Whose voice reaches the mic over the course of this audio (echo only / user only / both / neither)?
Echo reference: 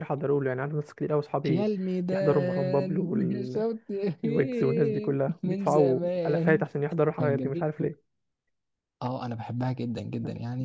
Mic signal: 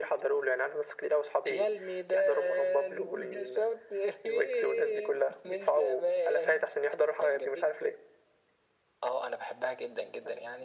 echo only